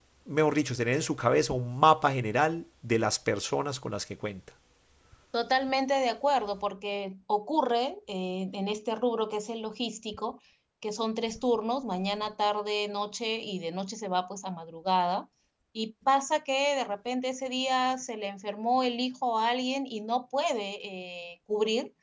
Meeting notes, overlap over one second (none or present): none